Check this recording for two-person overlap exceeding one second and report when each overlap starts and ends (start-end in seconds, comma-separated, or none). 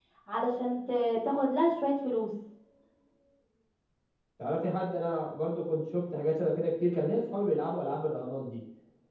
none